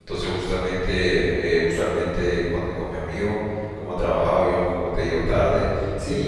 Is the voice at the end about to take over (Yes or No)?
No